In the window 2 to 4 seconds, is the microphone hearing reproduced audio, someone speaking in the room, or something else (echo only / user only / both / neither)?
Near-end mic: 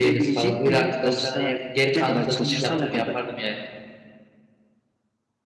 both